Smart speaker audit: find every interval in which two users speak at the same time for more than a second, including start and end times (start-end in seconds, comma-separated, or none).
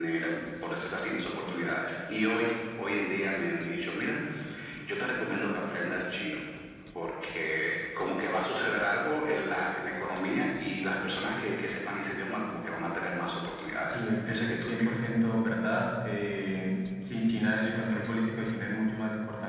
13.8-15.1